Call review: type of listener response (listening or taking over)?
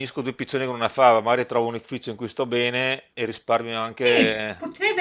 taking over